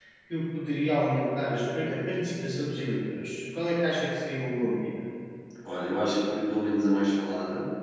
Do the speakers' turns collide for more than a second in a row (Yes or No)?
No